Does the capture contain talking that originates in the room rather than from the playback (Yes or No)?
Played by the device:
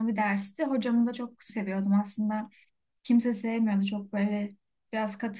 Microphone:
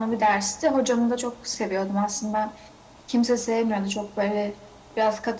No